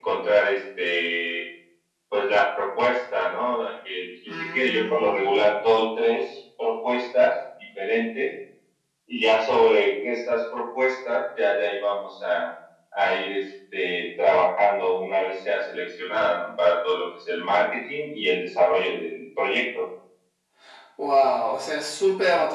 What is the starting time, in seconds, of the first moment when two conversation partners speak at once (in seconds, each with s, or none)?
4.3 s